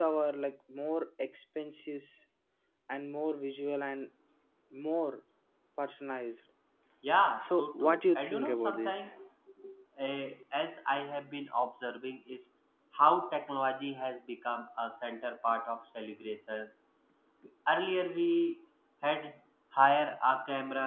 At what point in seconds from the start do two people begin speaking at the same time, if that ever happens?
7.5 s

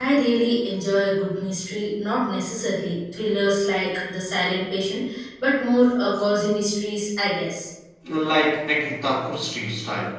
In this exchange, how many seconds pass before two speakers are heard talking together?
none

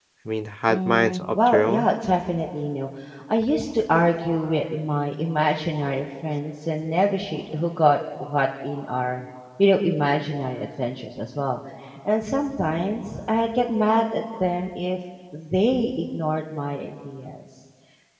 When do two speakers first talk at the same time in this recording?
0.7 s

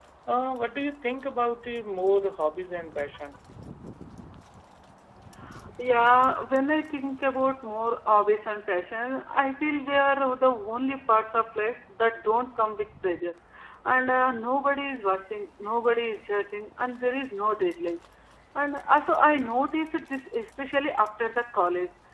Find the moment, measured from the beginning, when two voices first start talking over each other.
none

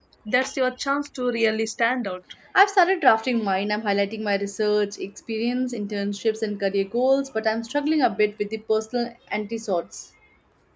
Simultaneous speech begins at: none

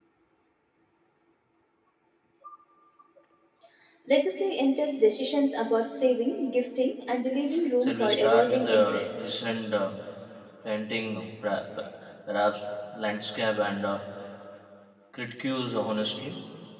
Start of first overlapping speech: 7.8 s

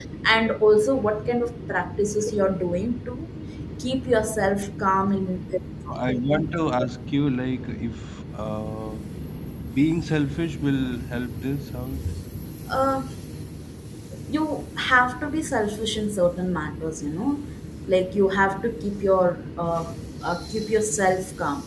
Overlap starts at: none

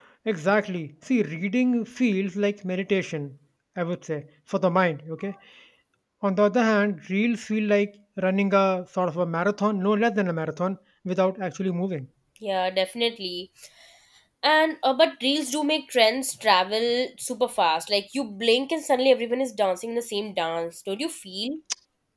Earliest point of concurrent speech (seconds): none

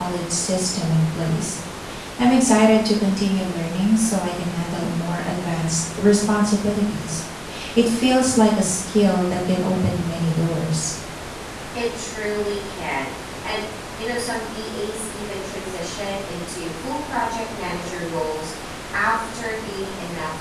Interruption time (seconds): none

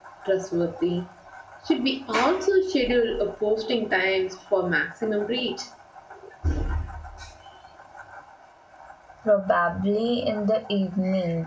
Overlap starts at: none

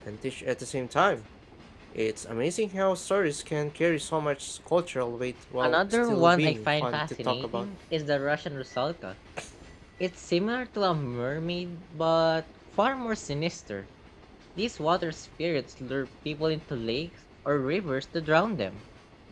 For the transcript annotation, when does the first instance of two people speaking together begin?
5.6 s

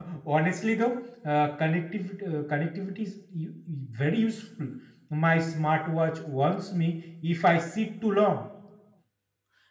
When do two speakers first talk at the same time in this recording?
none

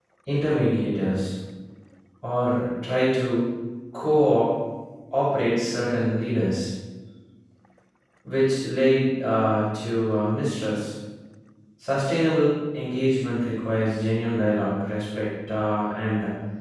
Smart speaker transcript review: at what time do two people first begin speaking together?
none

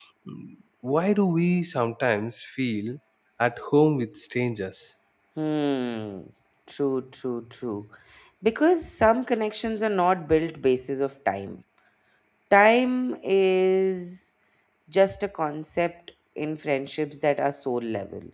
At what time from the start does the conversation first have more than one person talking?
none

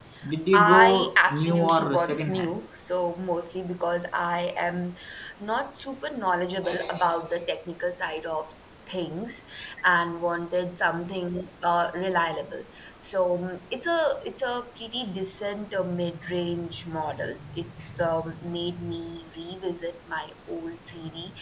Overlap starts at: 0.6 s

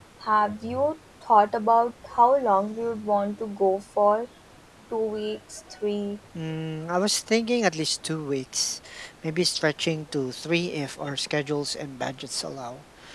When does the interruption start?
none

